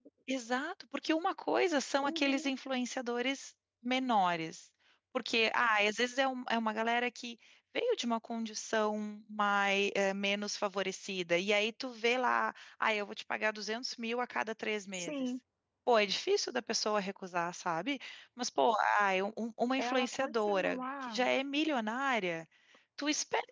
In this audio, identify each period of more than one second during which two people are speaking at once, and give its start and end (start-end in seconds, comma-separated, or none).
19.8-21.3